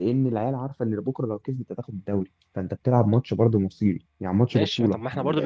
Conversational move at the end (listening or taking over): taking over